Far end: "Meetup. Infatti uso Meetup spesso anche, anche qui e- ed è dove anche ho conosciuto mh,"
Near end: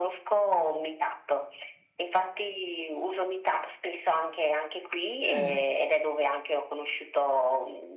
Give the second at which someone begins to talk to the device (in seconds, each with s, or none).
5.2 s